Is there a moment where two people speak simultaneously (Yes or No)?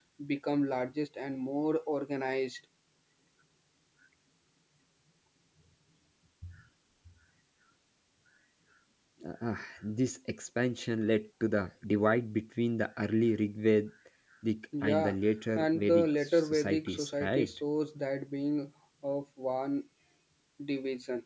Yes